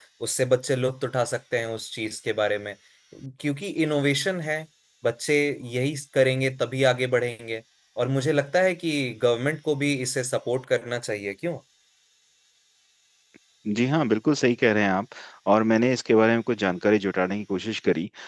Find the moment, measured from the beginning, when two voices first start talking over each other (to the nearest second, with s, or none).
none